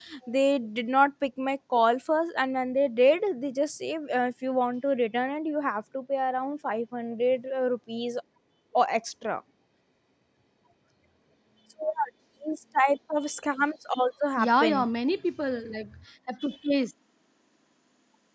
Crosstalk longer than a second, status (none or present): none